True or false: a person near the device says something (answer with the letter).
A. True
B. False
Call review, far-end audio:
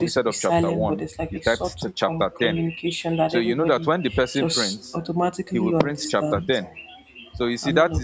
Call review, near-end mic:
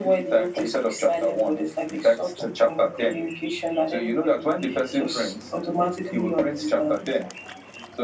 B